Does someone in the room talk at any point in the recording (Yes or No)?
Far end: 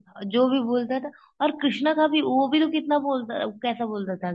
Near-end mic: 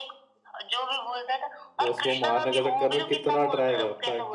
Yes